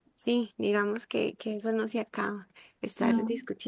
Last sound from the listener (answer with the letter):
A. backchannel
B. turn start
A